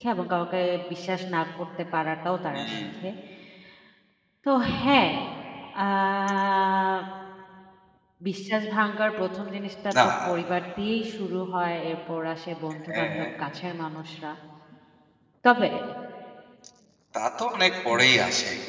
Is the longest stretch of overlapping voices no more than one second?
Yes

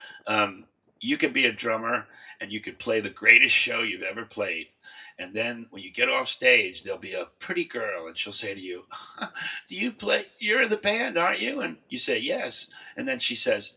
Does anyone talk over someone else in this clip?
No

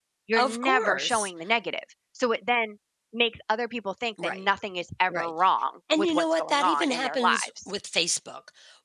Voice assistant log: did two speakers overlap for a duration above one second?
Yes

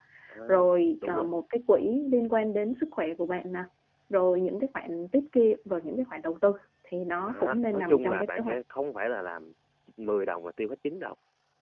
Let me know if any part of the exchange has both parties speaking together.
Yes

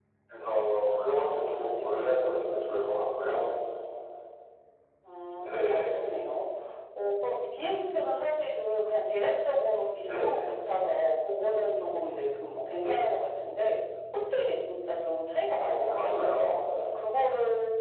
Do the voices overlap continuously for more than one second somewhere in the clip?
Yes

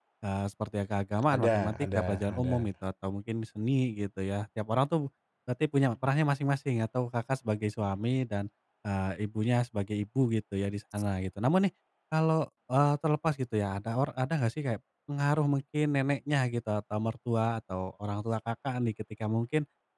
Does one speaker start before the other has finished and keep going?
Yes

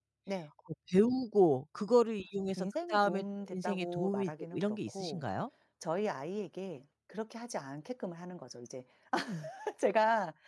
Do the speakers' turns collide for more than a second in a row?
Yes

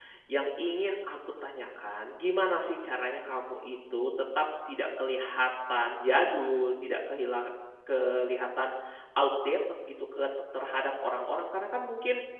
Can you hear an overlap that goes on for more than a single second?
No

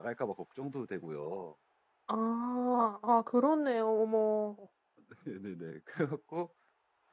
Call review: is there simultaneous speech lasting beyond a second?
No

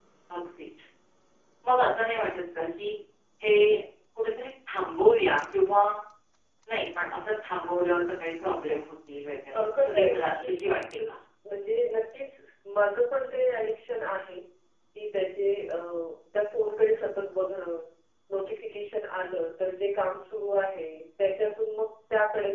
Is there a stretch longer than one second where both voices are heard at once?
Yes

